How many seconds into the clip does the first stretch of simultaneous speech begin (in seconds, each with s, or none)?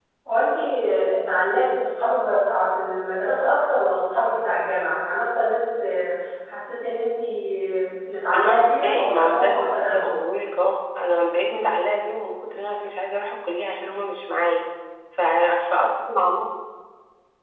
8.2 s